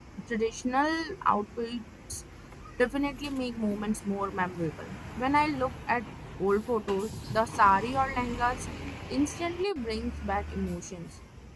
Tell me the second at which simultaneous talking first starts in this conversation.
none

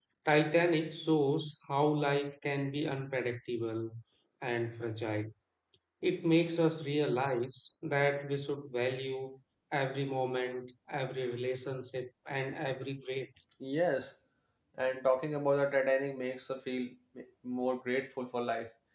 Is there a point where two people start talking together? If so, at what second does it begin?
none

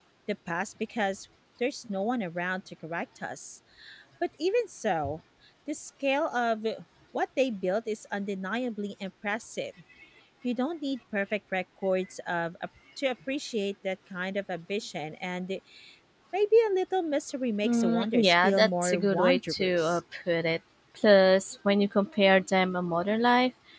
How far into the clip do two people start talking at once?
17.6 s

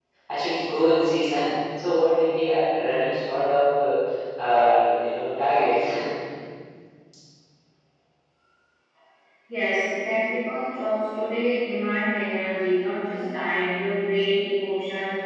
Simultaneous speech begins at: none

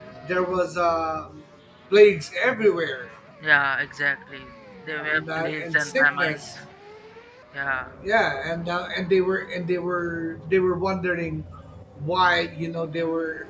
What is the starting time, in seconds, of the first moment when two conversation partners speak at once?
5.0 s

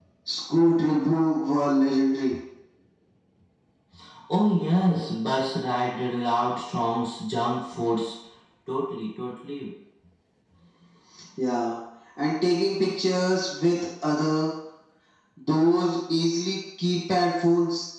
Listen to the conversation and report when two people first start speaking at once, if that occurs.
none

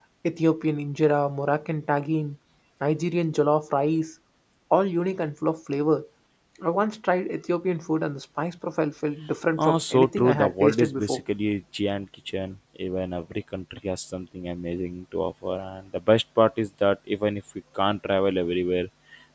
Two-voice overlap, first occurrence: 9.6 s

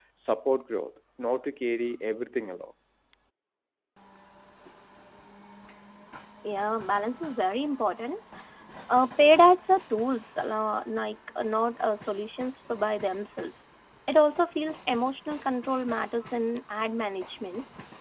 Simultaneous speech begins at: none

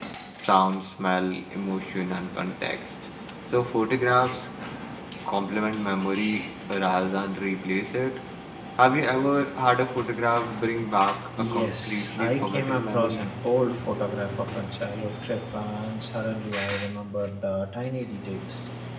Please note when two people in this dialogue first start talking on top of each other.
11.4 s

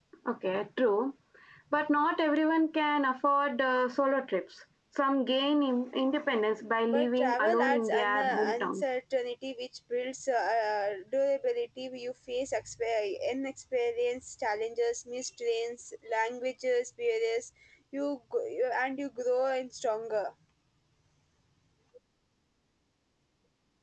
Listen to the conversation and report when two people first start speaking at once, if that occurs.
6.9 s

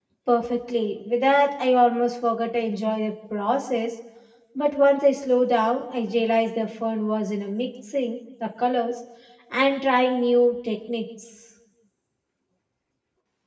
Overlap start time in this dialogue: none

